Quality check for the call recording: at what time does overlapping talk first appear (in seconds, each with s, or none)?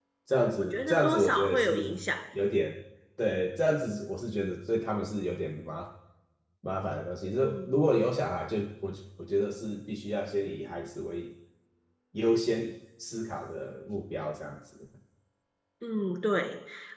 0.6 s